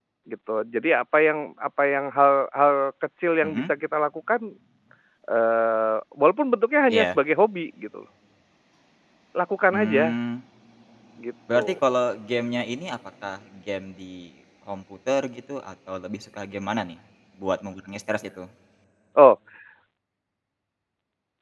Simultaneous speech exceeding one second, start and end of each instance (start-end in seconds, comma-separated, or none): none